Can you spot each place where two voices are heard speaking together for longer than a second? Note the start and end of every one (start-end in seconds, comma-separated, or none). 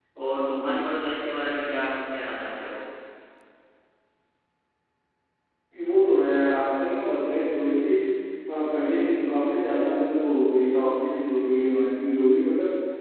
none